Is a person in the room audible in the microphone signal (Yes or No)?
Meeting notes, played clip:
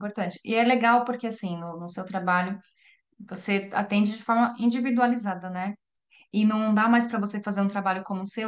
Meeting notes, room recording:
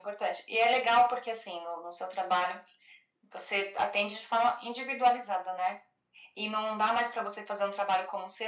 No